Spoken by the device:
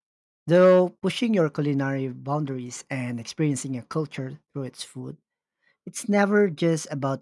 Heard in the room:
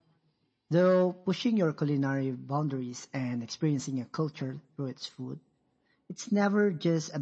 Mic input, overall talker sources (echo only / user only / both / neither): echo only